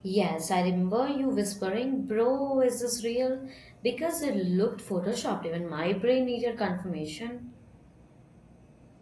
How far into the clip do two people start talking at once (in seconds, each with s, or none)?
none